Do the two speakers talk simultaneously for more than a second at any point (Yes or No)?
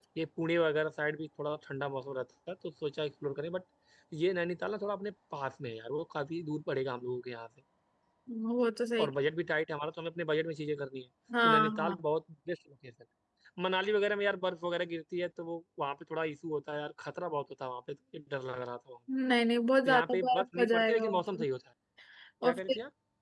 Yes